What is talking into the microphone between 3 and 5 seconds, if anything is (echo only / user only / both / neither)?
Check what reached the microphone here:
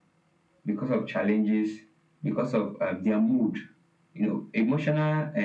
echo only